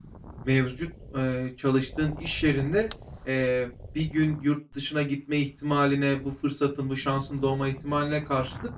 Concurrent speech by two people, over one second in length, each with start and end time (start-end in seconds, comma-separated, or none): none